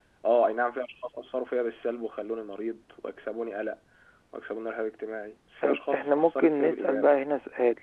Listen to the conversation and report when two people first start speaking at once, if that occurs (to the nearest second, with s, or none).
6 s